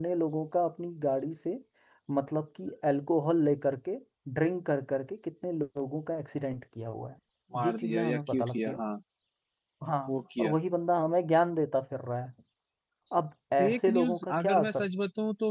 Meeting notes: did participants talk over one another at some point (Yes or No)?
Yes